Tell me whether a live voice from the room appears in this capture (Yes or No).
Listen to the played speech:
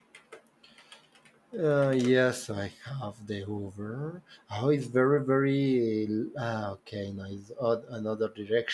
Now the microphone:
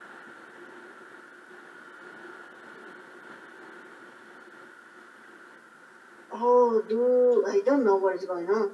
Yes